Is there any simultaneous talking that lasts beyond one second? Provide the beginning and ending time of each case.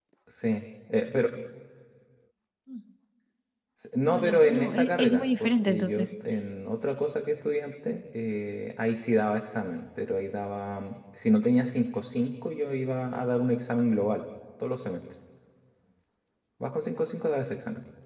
4.0-6.4

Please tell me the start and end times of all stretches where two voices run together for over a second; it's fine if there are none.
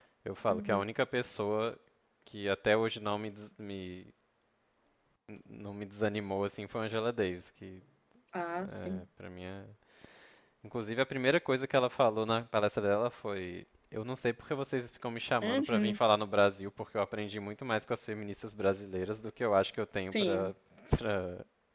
none

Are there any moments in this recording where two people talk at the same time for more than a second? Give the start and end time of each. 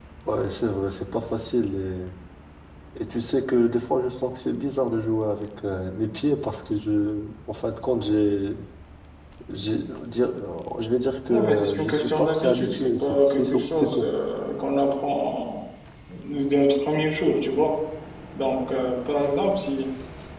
11.3-14.1

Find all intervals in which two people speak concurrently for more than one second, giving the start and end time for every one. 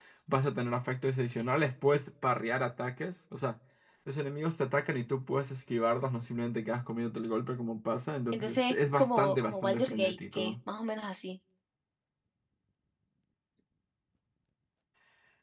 8.3-10.6

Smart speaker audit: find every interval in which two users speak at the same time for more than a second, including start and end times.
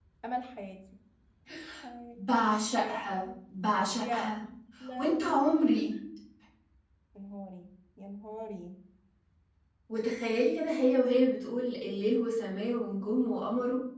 none

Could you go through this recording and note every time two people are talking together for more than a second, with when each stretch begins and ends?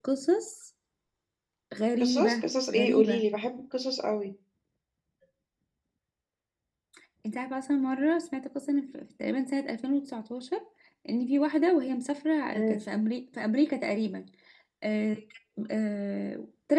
2.0-3.2

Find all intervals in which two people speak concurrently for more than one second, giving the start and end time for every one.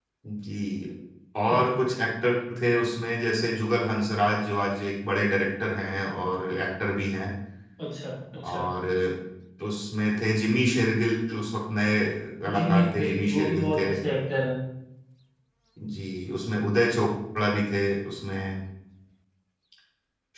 12.5-13.9

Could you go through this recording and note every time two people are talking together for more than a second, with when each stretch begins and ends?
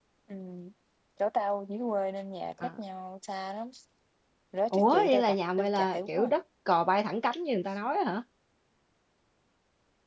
4.7-6.3

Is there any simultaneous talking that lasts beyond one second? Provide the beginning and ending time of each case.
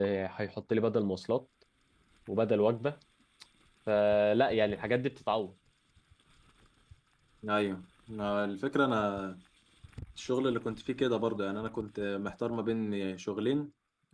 none

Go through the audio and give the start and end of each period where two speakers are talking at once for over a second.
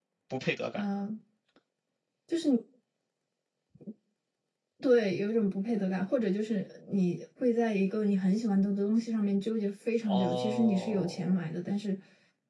10.1-11.5

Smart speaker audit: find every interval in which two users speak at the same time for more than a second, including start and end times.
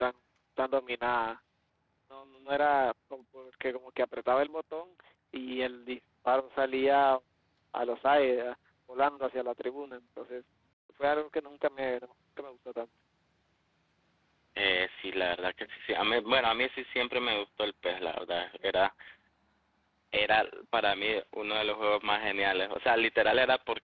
none

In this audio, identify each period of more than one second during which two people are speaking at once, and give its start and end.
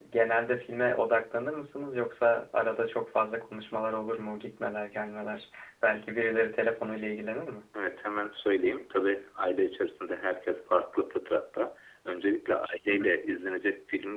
none

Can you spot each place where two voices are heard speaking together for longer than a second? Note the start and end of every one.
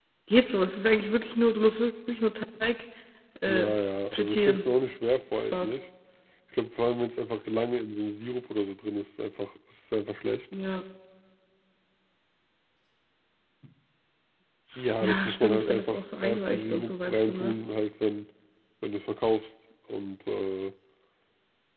15.0-17.5

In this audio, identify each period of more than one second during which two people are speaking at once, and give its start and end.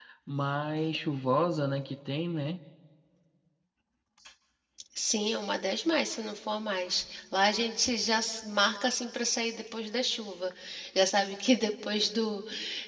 none

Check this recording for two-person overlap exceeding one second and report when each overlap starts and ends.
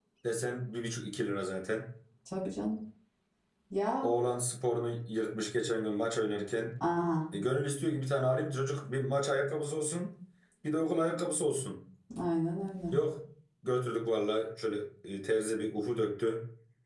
none

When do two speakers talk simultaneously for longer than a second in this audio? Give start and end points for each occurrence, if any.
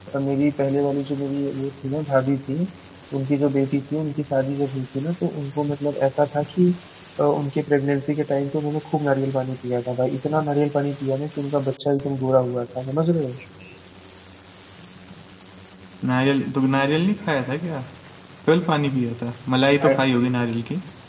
none

